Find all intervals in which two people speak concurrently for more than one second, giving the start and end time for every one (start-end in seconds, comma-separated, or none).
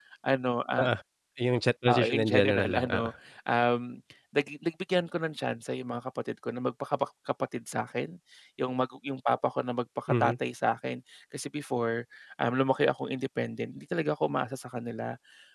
1.9-3.1